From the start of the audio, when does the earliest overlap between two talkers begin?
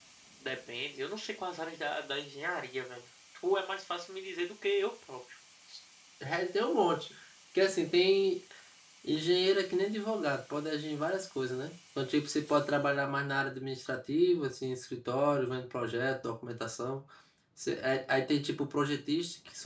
none

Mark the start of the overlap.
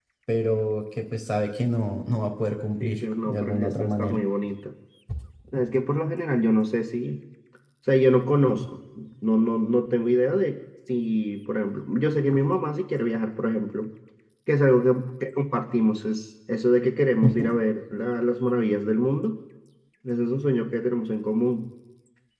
2.8 s

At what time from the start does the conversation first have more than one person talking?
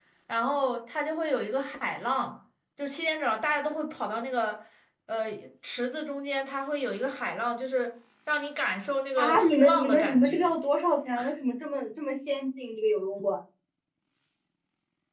9.2 s

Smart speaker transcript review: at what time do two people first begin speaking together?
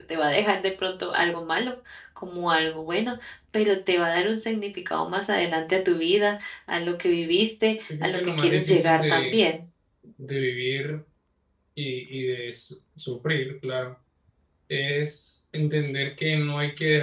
7.9 s

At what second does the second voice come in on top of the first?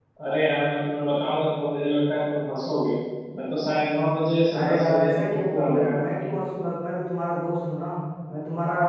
4.5 s

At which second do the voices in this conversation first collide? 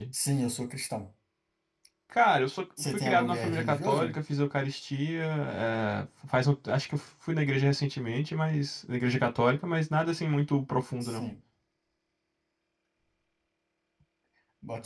2.9 s

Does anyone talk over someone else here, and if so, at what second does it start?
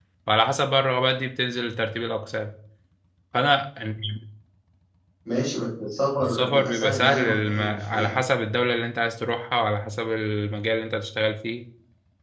6.2 s

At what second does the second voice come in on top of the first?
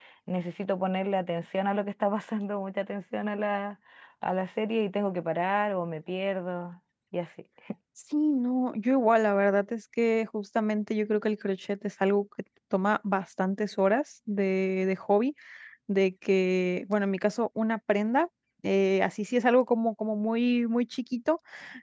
none

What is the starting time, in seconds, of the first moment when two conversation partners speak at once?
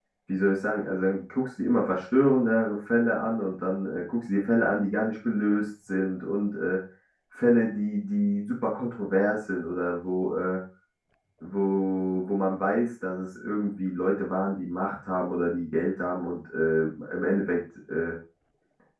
none

